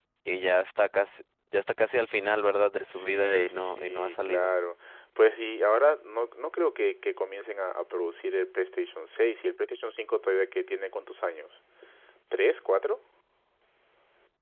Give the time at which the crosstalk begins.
3 s

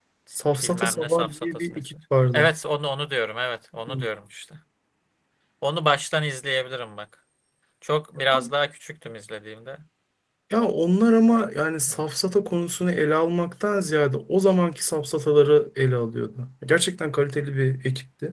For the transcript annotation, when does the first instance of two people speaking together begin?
1 s

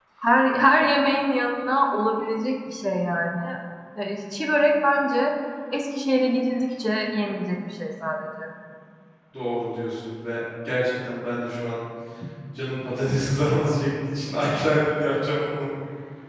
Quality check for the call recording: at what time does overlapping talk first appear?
none

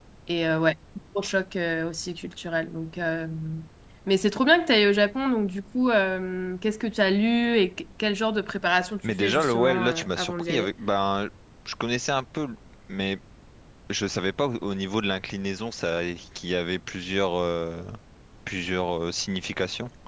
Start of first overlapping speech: 9 s

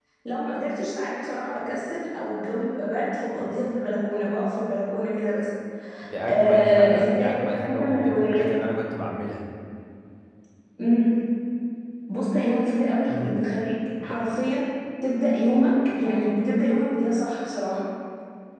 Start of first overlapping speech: 6 s

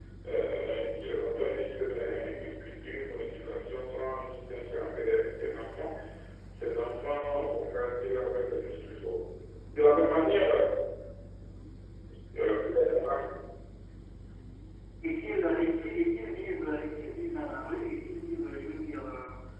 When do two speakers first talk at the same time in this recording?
none

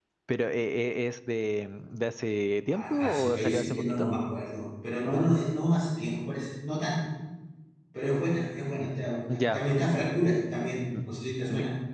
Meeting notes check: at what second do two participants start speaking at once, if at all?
3 s

